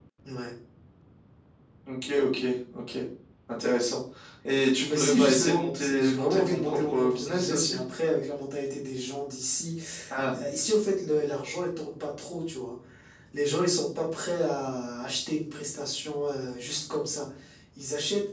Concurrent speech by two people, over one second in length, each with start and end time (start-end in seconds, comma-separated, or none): 4.9-7.8